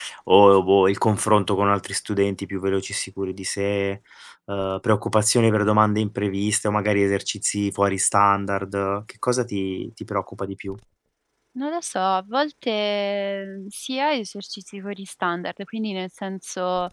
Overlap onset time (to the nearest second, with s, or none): none